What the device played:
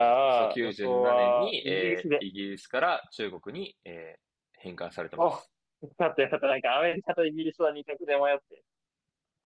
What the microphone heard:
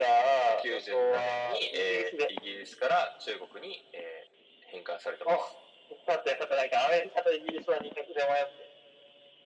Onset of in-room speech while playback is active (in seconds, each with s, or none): none